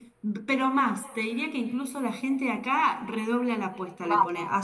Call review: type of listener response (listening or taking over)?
listening